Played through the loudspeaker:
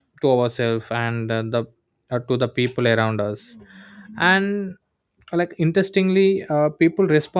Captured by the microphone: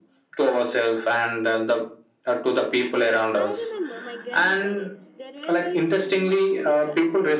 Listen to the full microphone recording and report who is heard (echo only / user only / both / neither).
both